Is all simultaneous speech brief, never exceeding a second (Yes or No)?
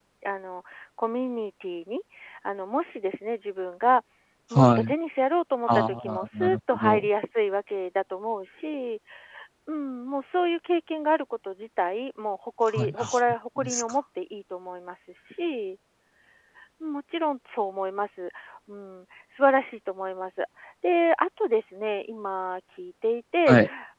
No